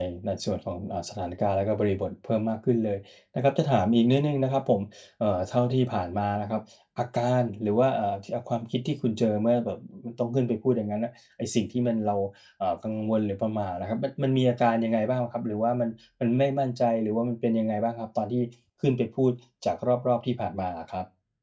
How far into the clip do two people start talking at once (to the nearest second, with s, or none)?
none